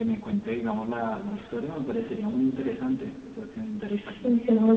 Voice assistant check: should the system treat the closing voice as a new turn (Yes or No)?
Yes